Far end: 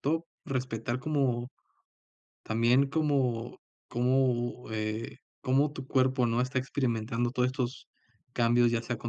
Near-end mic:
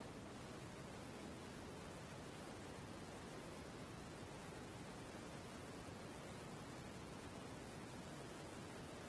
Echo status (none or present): none